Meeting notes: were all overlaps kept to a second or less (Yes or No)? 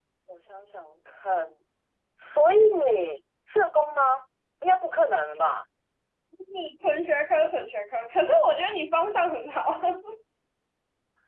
Yes